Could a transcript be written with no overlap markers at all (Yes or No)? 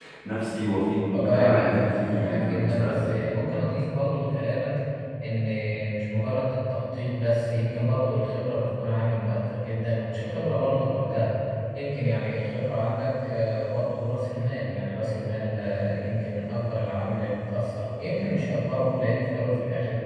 No